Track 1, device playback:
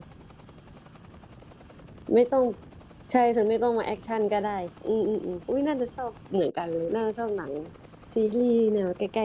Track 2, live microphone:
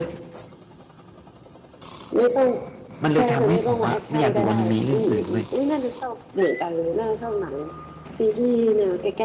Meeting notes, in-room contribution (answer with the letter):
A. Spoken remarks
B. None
A